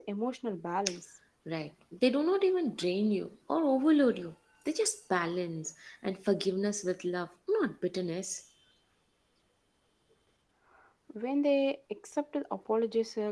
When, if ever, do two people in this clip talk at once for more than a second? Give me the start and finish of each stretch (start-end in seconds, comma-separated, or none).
none